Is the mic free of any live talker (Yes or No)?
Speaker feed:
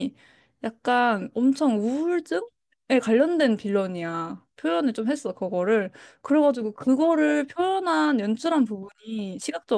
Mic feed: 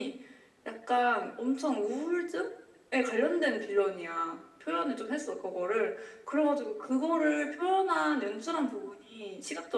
Yes